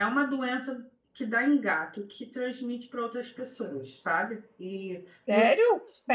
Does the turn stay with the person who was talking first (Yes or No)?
No